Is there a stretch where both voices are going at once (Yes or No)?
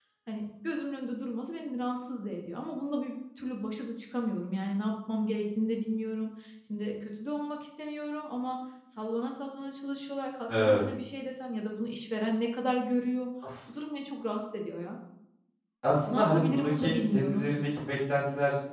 Yes